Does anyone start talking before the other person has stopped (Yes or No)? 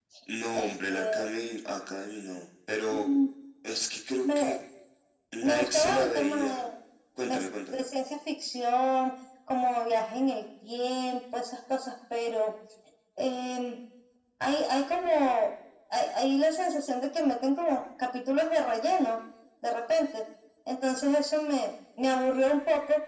Yes